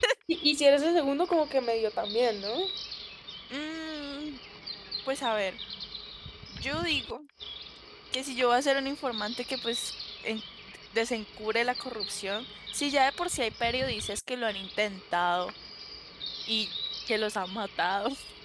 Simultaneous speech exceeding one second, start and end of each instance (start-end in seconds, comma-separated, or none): none